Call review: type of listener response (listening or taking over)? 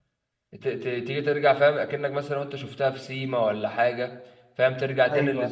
listening